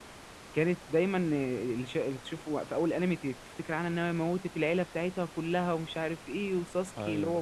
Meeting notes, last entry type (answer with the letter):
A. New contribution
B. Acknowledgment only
B